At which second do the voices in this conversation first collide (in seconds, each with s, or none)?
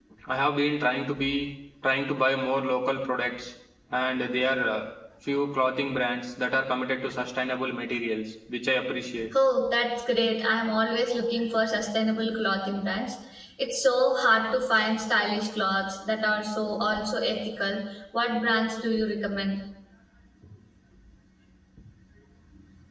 none